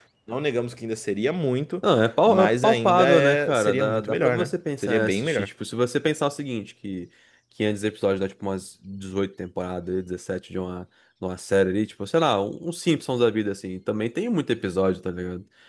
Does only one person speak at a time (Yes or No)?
No